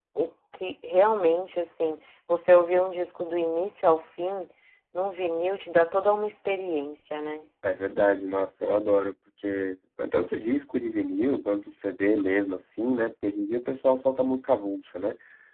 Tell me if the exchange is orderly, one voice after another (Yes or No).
Yes